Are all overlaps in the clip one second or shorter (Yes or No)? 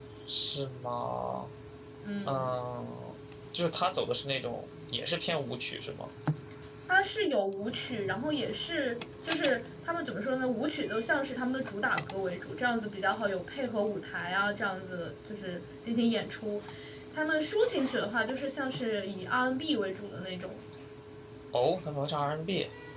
Yes